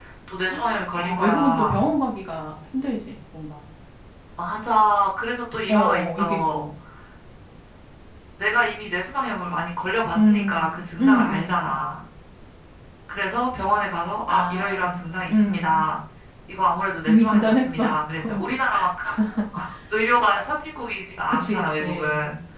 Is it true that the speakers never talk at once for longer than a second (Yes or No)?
No